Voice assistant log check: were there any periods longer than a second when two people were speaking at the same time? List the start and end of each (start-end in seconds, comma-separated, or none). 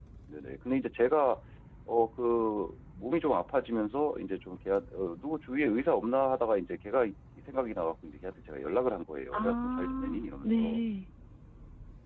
9.3-10.8